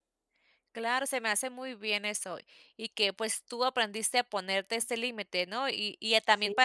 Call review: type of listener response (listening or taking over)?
listening